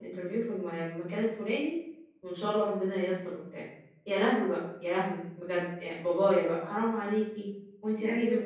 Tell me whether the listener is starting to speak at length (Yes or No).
No